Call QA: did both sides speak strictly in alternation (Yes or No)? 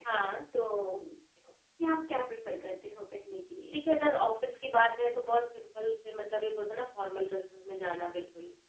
Yes